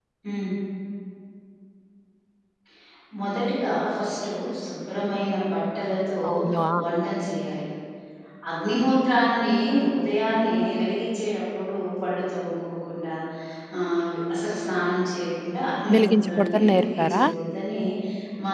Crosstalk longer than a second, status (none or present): present